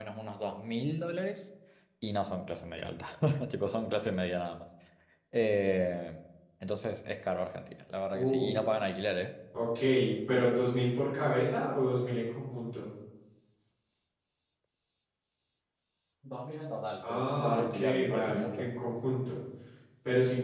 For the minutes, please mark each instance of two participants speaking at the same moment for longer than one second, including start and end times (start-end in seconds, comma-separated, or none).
17.0-18.7